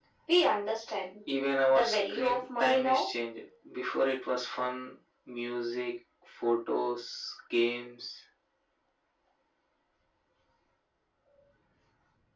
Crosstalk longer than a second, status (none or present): present